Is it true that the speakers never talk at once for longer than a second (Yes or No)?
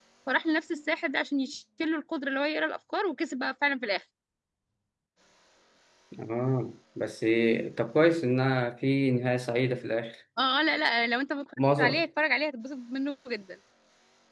Yes